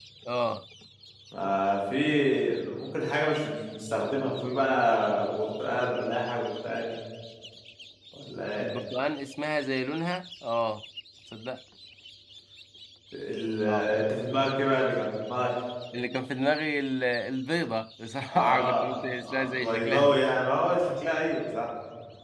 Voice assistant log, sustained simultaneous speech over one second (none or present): present